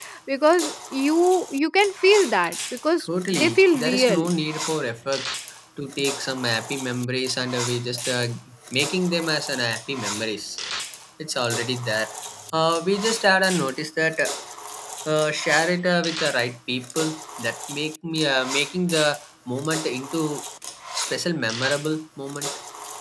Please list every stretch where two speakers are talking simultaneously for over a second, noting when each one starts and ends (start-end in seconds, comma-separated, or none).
3.0-4.2